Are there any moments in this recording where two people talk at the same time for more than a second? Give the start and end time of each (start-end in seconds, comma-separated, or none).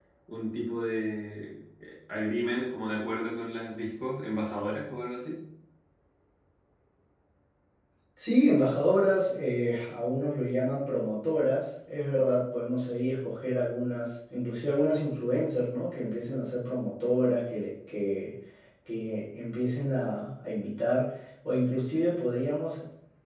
none